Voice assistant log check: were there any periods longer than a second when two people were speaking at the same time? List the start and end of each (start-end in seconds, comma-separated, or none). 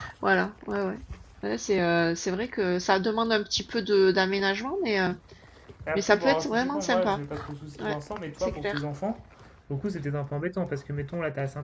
6.0-7.2